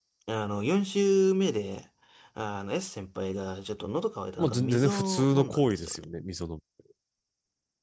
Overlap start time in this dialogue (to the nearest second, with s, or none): 4 s